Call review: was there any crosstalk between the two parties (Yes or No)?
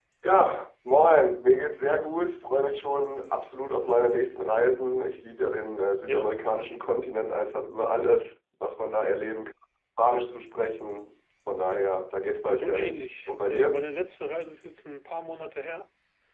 Yes